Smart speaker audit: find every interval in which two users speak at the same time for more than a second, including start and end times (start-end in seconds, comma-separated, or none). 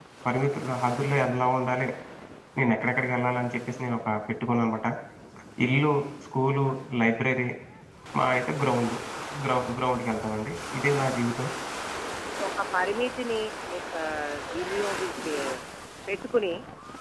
none